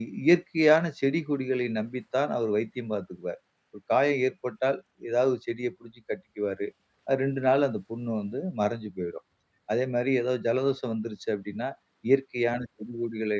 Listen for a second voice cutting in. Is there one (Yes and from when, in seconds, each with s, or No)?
No